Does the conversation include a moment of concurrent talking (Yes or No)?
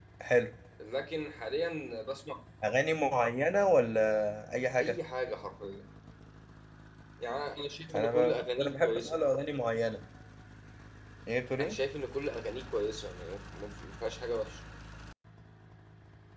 Yes